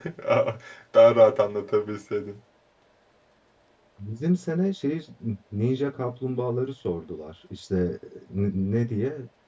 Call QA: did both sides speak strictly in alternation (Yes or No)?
Yes